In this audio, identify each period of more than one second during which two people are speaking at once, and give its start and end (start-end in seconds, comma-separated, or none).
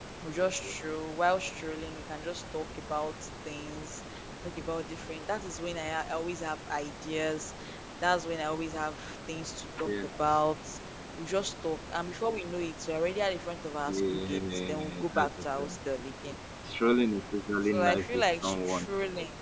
13.9-15.8, 17.6-18.9